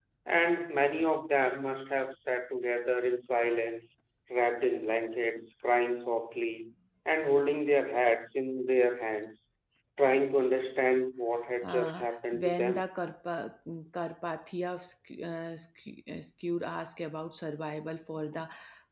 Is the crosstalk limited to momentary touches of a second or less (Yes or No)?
No